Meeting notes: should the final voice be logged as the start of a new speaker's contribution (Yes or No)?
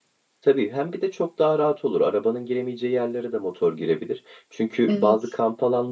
No